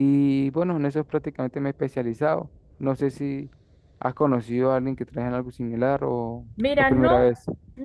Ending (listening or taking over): taking over